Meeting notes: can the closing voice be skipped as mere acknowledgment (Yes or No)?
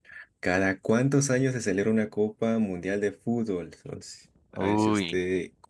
Yes